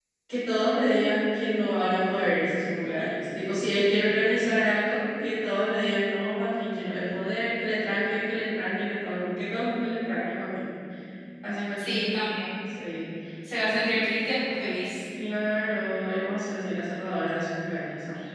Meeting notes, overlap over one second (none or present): none